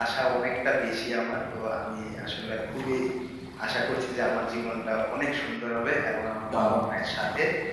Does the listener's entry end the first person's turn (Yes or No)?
No